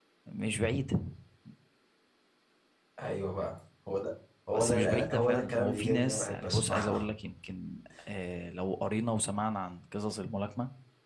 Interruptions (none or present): present